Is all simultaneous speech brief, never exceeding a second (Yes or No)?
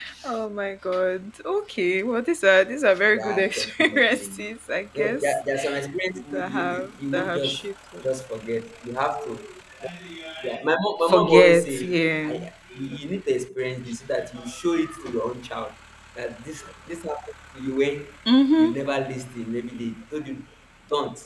No